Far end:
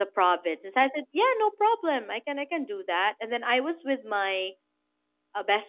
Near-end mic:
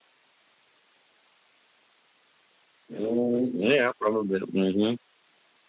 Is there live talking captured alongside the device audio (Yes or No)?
Yes